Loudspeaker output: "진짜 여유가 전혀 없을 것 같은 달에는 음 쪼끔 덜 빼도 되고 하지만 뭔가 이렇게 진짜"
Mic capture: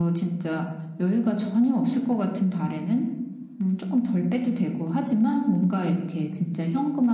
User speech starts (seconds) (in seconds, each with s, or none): none